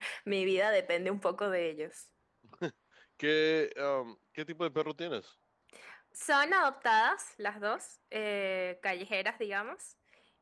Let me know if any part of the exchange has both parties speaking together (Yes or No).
No